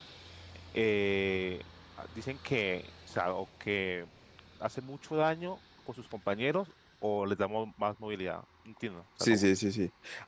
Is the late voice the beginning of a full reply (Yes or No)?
Yes